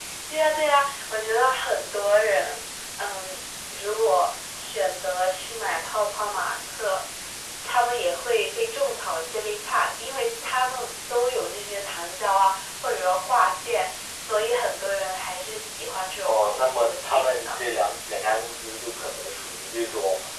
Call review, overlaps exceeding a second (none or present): present